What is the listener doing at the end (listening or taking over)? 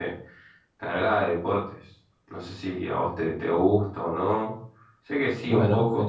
taking over